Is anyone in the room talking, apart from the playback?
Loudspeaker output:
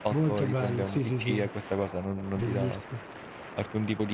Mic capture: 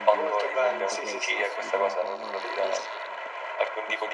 Yes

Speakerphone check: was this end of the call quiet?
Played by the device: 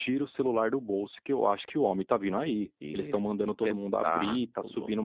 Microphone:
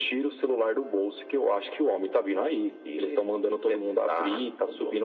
Yes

